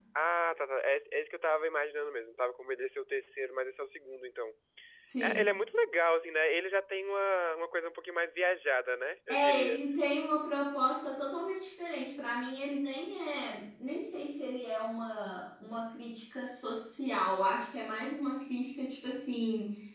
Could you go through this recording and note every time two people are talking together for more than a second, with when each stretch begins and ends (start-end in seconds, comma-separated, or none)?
none